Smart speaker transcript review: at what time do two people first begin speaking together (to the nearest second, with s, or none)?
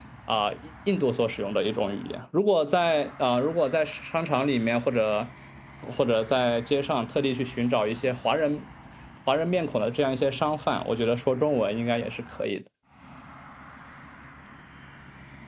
none